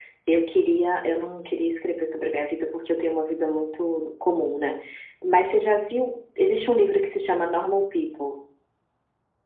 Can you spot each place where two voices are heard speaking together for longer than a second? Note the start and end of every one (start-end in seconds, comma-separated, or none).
none